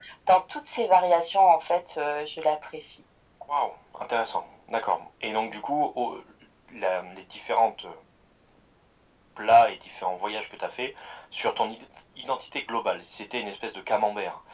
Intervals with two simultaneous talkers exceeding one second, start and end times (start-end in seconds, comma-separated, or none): none